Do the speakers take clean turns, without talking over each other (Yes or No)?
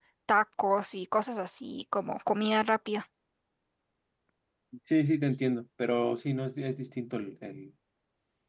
Yes